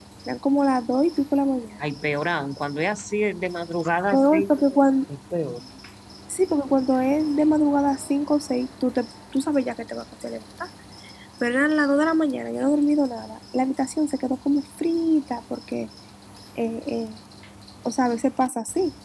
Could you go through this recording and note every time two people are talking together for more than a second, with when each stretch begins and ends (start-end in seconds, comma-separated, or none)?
none